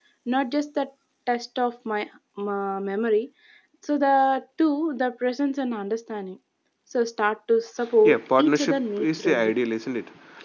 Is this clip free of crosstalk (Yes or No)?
No